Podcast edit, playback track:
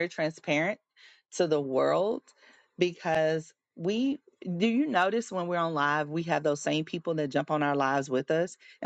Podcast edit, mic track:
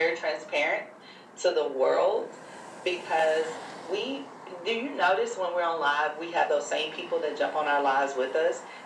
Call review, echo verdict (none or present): present